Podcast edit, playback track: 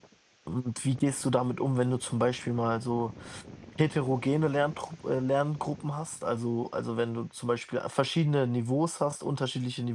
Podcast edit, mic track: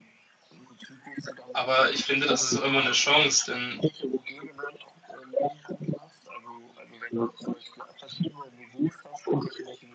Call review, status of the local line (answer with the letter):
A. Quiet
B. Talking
B